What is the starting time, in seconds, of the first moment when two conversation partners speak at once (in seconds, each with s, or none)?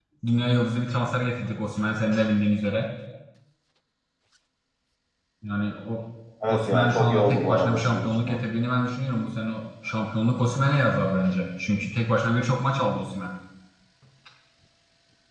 6.5 s